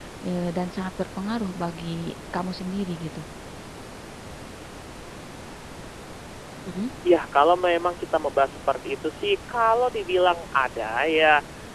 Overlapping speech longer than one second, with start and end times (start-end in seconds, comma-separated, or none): none